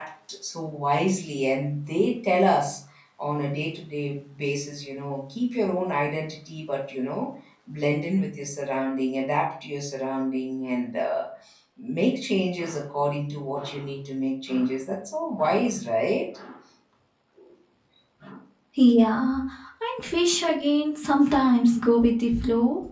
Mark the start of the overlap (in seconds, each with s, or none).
none